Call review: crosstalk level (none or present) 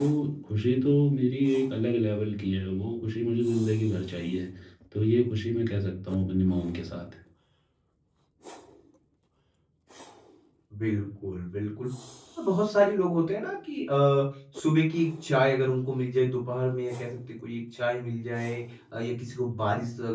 none